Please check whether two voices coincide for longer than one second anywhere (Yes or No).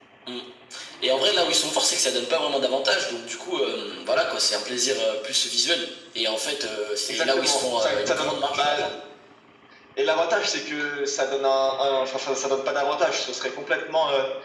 Yes